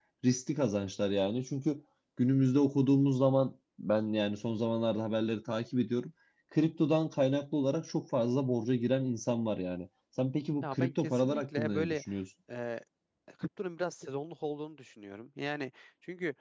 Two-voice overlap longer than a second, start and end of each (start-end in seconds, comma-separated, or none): 10.6-12.0